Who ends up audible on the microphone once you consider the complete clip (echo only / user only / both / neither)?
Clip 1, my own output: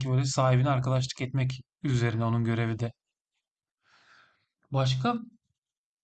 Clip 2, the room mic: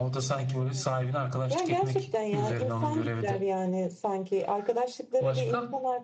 both